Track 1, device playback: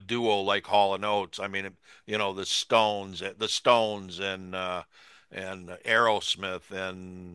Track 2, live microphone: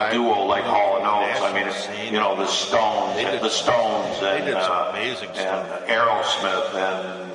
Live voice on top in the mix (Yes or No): No